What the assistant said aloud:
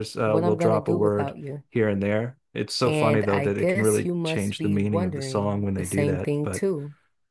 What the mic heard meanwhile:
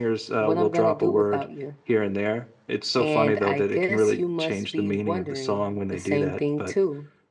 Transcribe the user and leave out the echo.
none

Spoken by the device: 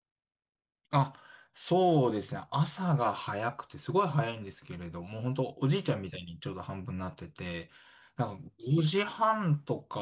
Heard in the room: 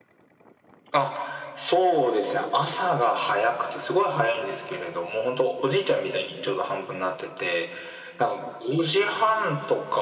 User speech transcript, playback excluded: none

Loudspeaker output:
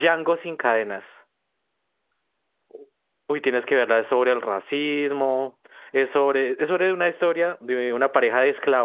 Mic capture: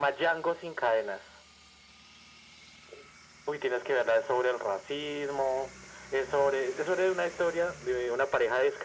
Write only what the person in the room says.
none

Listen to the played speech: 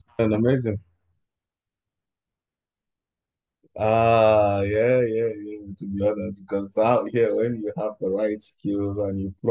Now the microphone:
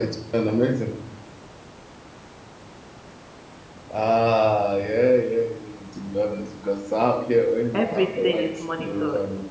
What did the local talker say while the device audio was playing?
Everything is monitored.

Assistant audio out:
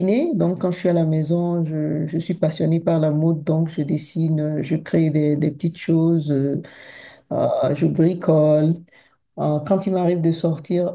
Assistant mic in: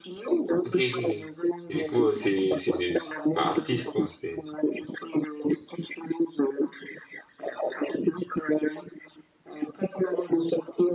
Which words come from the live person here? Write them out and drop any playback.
Ok, ok, ok. Et du coup, euh, c'est c'est des c'est- enfin, artistes quoi, c'est.

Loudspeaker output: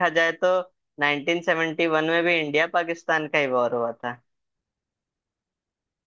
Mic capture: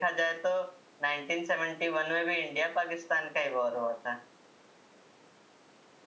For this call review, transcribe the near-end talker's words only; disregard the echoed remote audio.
none

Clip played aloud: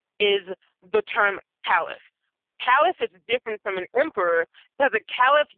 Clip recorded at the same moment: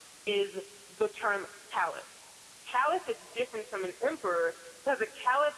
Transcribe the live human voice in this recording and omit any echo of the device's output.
none

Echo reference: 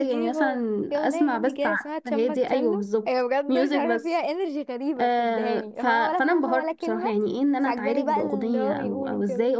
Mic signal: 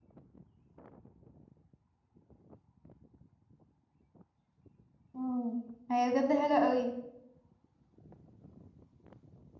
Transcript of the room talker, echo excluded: مم. هي بجد حلوه قوي

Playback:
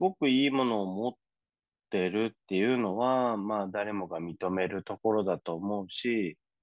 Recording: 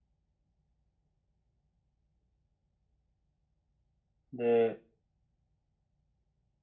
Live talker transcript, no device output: で、

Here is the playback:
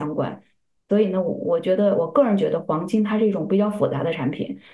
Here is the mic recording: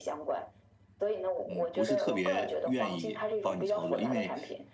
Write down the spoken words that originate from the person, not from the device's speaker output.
嗯不是特别愿意帮你操作，因为

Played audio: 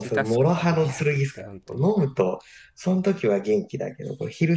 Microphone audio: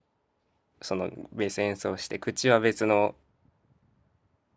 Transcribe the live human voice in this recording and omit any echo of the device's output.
そのベース演奏して、口は別の

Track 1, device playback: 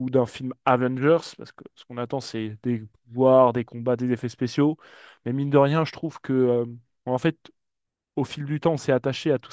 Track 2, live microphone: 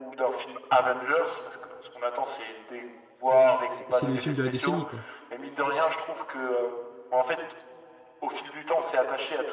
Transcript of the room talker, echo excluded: C'est c'est le film de la décennie, quoi.

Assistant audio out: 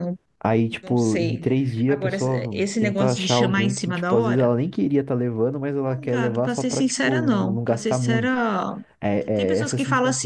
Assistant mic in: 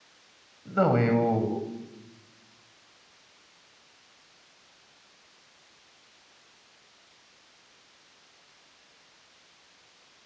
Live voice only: não, eu

